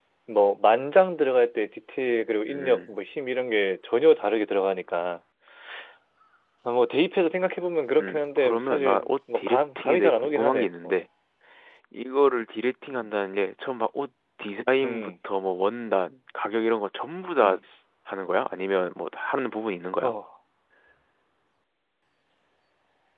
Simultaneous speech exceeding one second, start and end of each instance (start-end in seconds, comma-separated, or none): 8.0-11.0